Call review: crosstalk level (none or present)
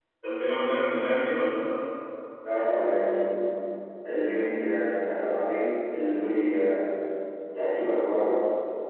none